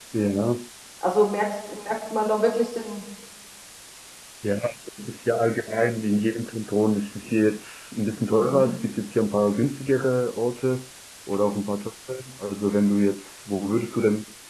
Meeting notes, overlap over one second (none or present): none